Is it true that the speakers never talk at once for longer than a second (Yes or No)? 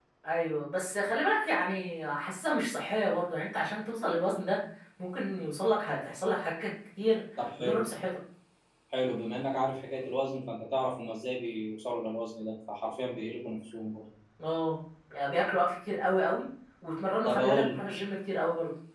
Yes